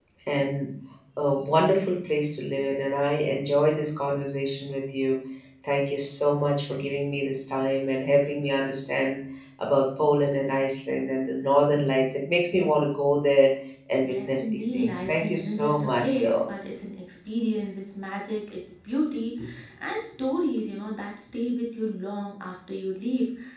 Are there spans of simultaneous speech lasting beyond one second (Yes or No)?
Yes